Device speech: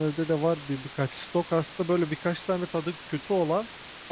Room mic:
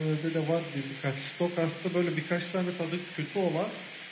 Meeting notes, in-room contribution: none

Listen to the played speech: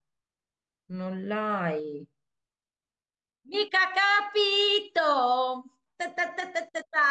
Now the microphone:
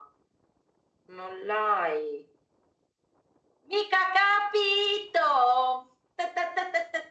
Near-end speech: none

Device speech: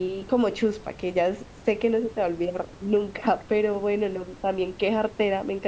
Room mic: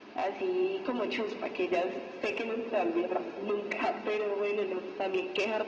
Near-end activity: none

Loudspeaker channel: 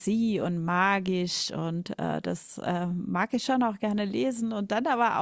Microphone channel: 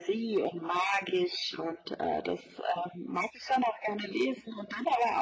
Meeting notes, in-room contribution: none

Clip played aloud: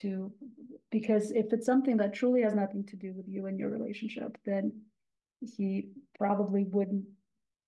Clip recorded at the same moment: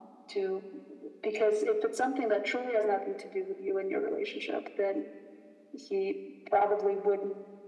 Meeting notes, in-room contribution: none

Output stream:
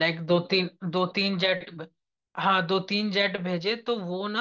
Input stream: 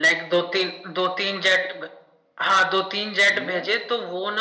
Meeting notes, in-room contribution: present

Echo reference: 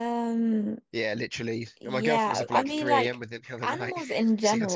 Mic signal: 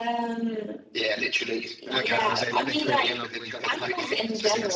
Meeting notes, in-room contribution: present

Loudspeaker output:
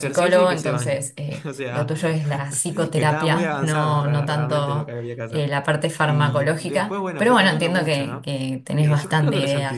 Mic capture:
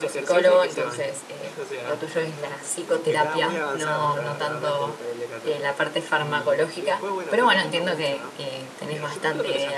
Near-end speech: none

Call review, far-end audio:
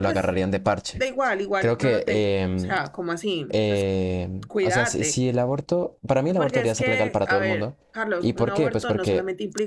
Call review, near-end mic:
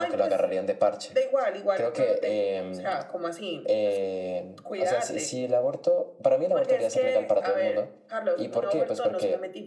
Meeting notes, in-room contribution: none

